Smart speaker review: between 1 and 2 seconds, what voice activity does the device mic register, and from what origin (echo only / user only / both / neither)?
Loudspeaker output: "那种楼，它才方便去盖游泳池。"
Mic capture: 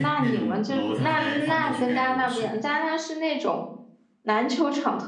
both